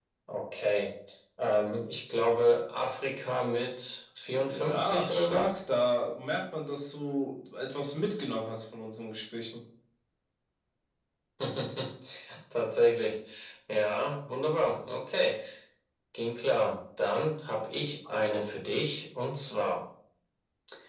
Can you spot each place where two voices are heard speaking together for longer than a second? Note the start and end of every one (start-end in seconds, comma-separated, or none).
4.3-5.5